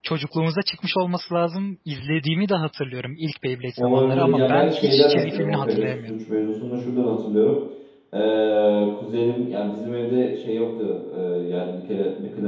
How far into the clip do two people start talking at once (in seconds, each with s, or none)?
3.8 s